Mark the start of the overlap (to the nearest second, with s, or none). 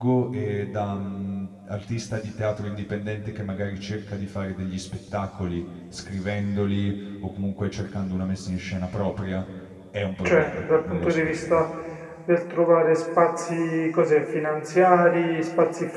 10 s